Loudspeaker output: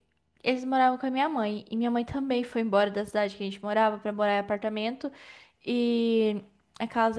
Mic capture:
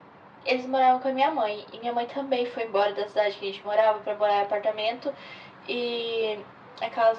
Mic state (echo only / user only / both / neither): echo only